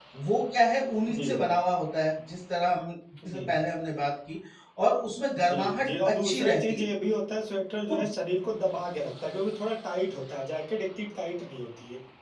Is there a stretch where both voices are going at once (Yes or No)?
Yes